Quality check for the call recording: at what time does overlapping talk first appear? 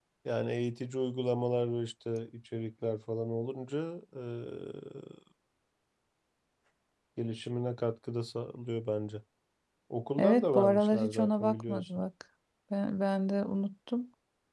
10.2 s

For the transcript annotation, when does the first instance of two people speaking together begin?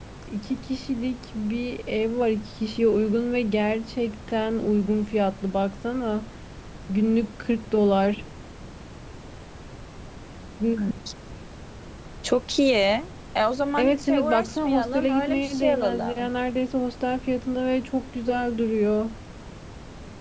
13.8 s

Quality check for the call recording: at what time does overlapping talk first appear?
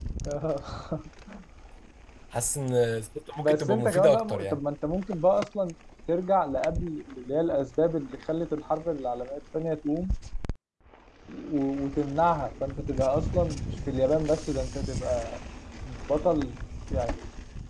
3.4 s

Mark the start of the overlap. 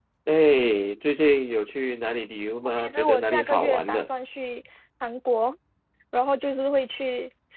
2.8 s

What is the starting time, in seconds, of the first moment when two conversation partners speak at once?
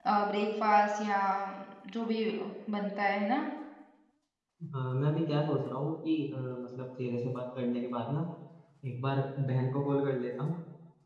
none

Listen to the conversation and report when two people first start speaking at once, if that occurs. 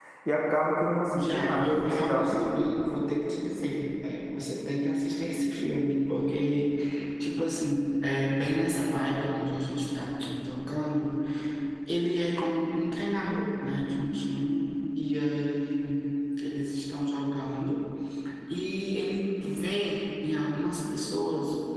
1.1 s

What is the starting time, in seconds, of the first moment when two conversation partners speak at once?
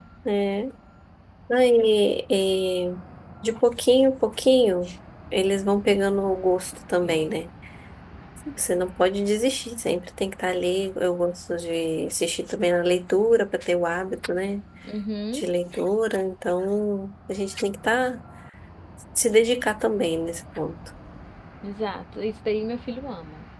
none

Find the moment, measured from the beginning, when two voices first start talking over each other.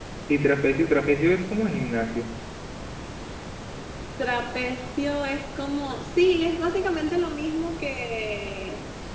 none

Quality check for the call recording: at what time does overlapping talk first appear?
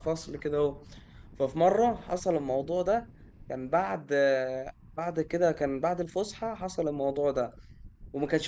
none

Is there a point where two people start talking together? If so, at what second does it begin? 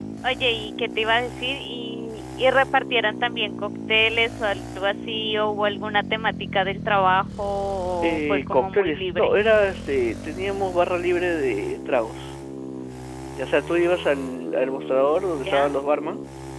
8.0 s

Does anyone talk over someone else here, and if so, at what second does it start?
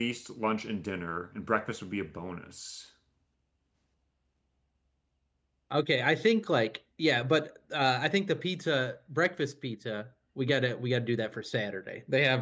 none

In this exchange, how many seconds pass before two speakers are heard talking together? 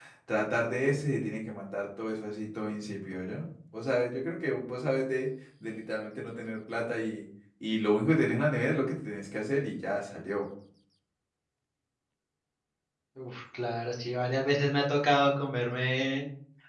none

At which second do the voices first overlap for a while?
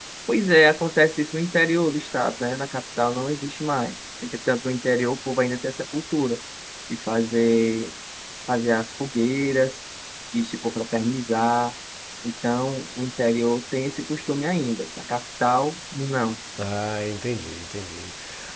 none

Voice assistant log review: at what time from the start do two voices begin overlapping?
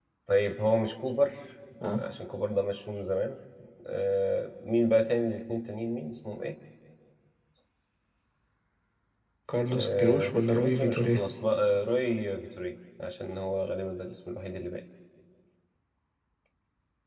9.7 s

